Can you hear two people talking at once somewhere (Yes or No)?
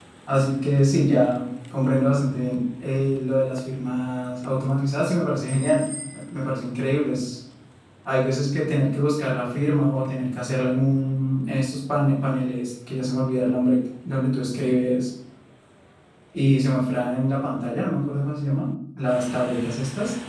No